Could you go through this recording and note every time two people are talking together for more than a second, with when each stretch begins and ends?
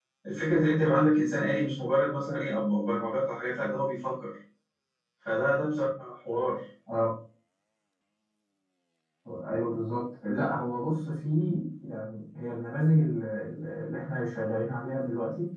none

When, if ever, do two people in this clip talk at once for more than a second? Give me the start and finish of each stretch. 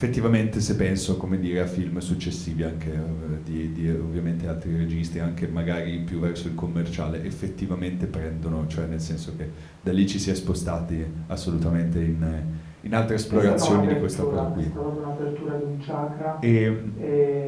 13.3-14.7

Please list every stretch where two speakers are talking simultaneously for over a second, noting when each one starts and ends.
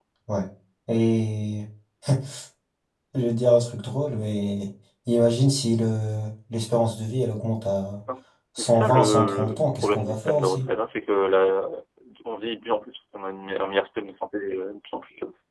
8.6-10.7

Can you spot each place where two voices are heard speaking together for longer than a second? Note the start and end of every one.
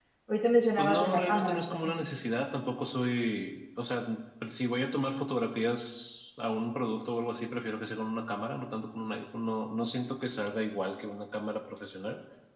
0.8-2.0

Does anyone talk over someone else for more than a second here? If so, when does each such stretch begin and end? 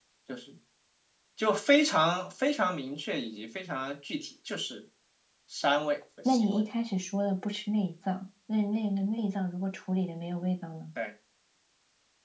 none

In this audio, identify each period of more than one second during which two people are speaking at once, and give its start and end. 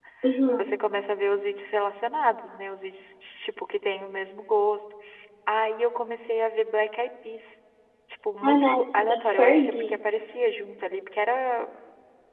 8.4-10.0

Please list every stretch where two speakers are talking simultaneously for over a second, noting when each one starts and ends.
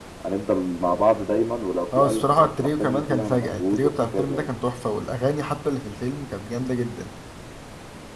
2.0-4.5

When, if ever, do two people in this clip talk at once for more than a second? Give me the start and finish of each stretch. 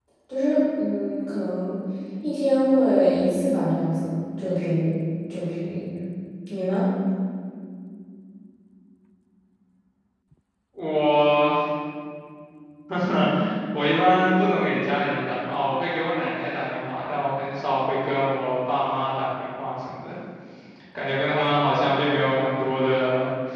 none

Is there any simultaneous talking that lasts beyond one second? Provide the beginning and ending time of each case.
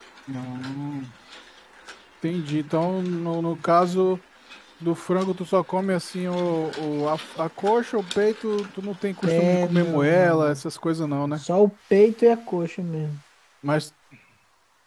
9.2-10.6

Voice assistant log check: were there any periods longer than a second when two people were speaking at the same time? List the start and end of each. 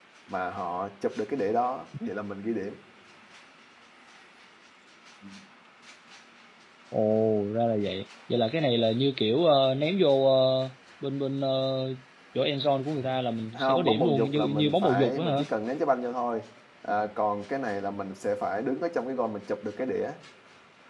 13.5-15.5

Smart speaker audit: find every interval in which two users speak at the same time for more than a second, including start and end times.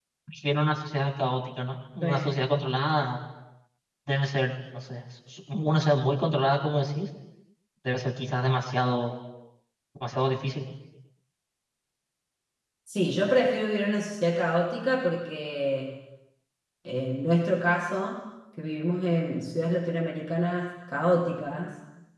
none

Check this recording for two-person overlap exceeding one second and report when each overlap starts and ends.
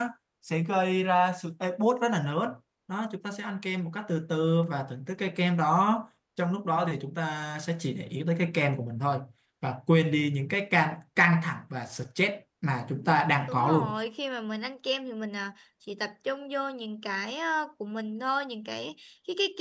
none

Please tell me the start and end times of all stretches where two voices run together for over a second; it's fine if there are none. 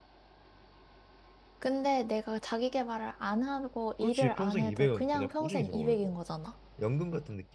4.0-6.1

